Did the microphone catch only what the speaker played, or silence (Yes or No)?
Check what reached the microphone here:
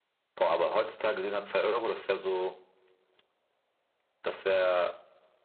Yes